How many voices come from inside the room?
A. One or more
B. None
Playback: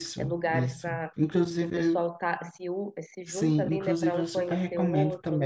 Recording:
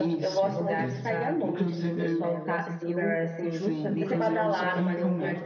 A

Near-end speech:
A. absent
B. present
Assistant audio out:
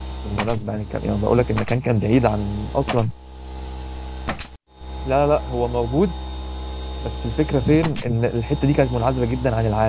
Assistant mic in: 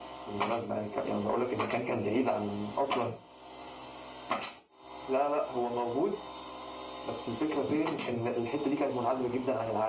A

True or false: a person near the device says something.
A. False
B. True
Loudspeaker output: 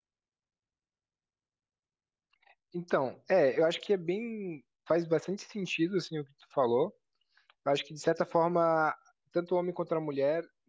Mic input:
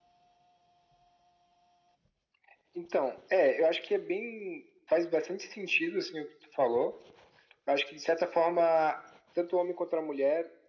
A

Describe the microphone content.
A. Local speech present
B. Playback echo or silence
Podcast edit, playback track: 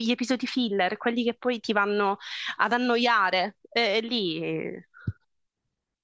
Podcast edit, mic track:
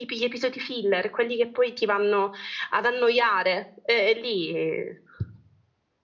B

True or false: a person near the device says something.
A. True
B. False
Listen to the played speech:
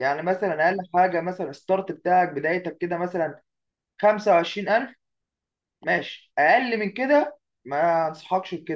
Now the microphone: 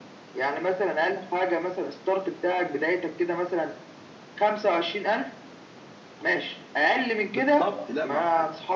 A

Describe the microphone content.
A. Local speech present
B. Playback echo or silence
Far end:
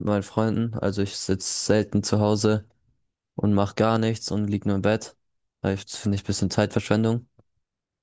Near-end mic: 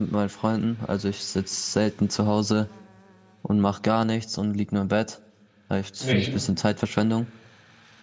A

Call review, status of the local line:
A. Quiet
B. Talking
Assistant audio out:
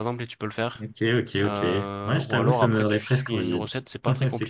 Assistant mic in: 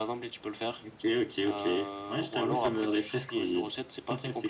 A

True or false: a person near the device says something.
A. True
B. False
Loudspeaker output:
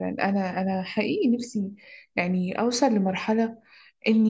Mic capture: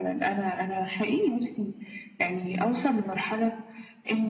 B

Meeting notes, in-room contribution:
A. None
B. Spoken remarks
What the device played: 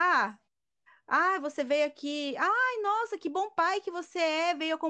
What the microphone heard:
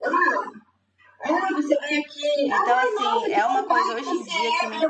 B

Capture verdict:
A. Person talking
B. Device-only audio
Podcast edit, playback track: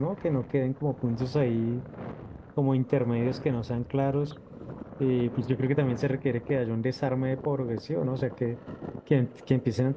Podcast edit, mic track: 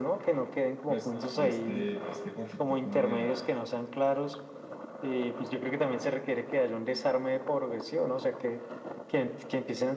A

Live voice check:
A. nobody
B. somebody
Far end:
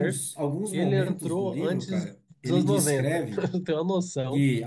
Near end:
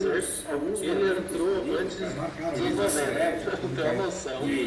B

